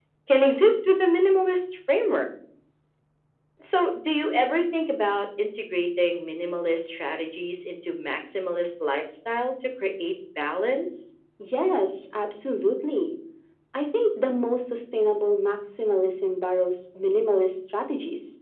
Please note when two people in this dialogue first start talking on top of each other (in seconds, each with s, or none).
none